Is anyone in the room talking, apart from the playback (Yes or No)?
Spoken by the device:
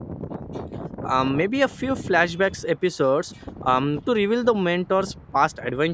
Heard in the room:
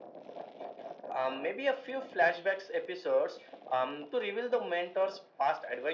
No